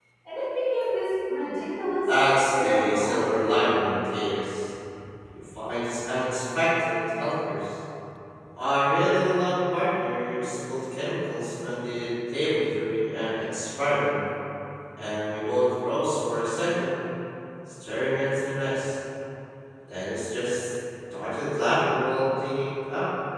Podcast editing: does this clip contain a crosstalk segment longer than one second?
Yes, from 2.0 s

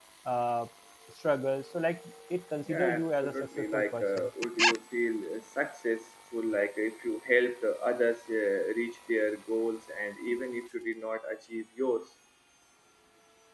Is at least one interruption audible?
Yes, from 2.7 s

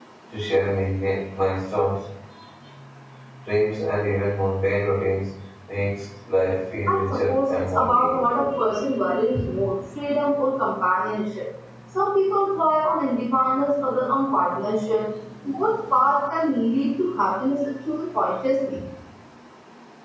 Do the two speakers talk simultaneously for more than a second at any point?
Yes, from 6.9 s

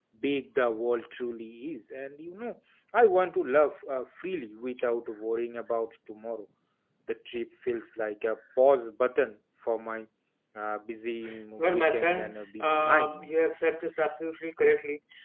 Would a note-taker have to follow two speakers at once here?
Yes, from 11.6 s

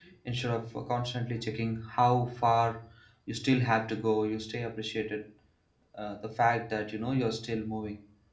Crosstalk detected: No

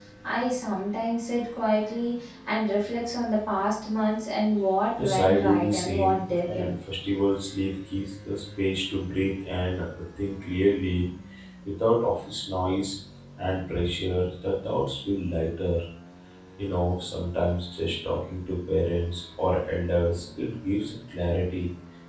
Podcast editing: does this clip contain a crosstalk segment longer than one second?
Yes, from 5.0 s

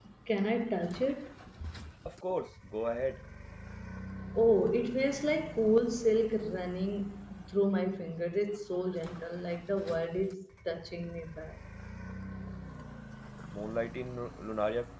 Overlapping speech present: No

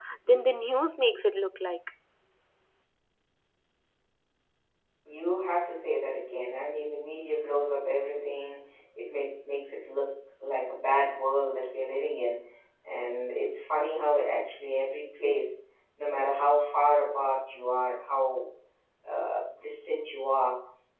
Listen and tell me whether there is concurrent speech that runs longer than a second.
No

